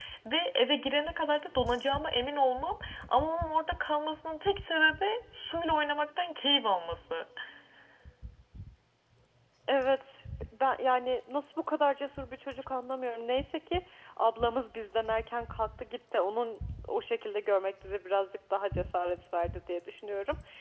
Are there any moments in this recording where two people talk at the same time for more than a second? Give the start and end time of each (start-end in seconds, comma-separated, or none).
none